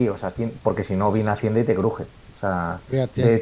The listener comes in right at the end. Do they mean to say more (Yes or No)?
No